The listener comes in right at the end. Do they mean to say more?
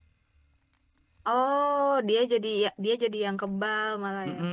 Yes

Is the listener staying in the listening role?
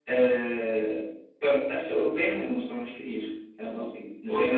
No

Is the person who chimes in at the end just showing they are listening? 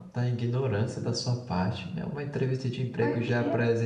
Yes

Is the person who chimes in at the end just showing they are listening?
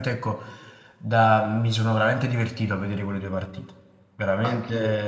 No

